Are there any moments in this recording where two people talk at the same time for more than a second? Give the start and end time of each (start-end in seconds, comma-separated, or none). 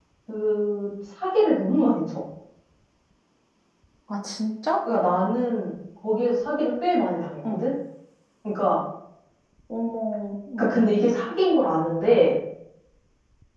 none